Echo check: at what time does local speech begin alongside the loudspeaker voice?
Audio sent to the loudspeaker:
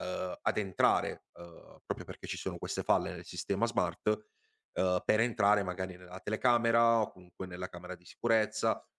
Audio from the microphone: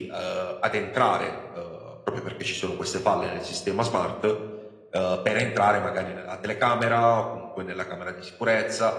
none

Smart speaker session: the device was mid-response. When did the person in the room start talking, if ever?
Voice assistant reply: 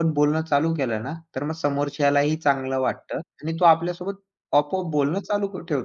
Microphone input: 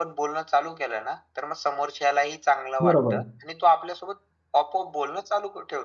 2.8 s

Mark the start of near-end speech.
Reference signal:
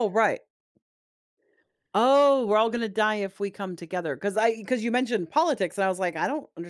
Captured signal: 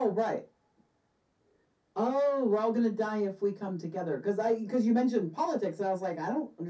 none

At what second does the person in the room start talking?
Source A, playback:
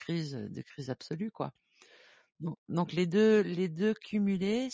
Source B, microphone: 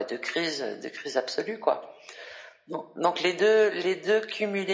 none

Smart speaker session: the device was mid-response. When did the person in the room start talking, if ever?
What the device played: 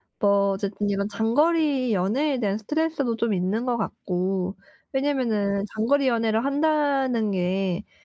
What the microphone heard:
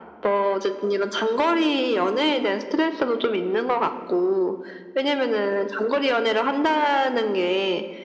none

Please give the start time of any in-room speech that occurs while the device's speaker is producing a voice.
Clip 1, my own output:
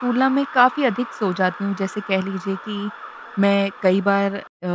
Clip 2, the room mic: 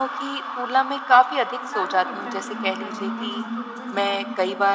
1.6 s

